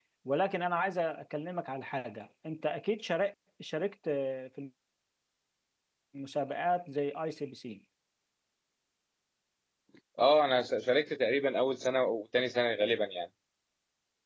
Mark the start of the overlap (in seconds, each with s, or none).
none